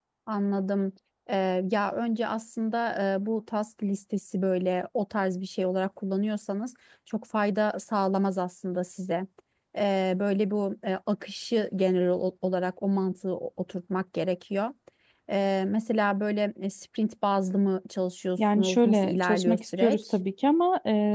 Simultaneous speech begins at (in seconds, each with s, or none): 18.4 s